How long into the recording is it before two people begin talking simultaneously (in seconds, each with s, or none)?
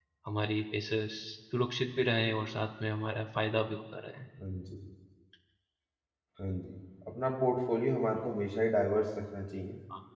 none